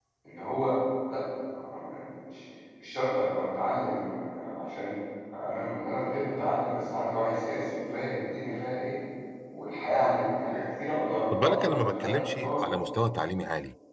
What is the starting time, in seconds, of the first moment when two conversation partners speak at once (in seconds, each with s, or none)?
11.3 s